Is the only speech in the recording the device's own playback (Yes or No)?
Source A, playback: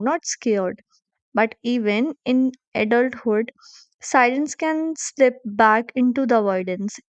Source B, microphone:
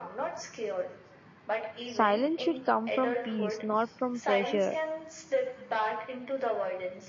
No